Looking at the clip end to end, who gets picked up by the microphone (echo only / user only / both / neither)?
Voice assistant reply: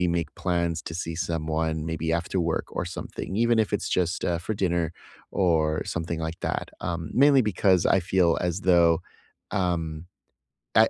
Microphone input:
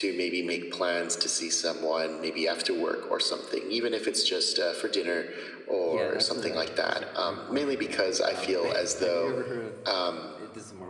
both